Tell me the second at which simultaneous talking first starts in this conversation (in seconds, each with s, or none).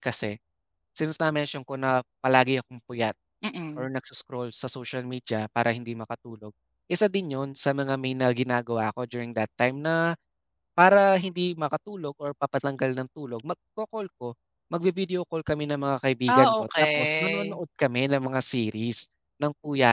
16.3 s